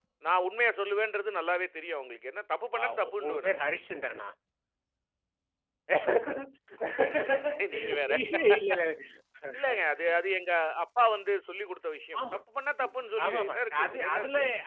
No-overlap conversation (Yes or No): No